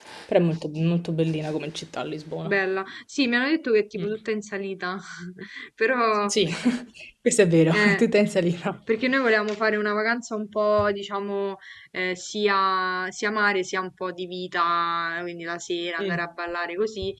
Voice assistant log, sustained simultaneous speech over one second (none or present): none